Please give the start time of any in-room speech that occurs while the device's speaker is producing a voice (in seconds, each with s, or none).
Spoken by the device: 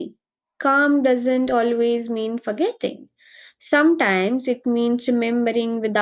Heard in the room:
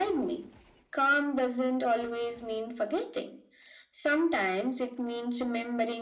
none